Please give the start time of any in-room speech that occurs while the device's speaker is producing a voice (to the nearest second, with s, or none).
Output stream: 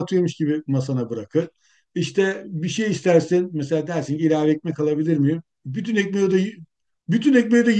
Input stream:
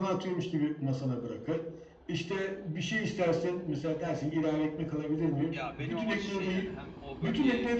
6 s